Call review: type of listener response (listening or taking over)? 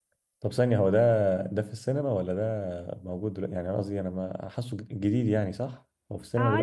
taking over